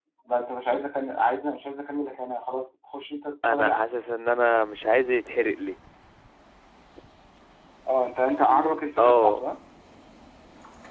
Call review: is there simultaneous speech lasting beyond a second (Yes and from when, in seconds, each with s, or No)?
No